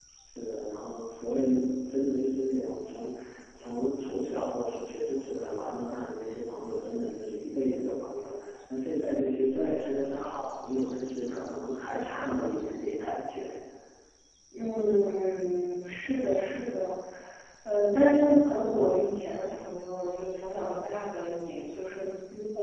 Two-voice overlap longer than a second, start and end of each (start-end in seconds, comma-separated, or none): none